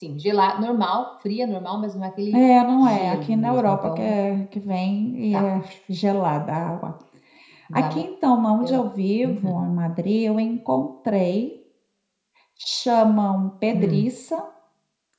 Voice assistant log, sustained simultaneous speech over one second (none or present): present